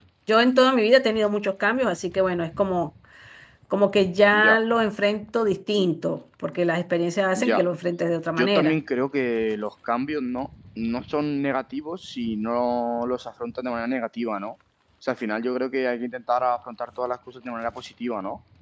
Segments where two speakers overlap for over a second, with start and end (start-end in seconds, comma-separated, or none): none